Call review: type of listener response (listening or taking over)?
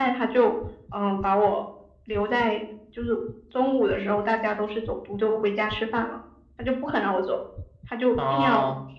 listening